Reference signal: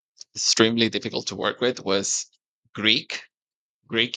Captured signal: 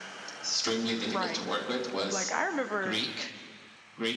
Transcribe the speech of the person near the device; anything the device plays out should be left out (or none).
Right. I'm like, I remember,